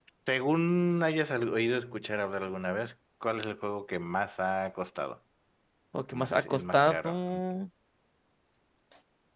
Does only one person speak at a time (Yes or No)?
No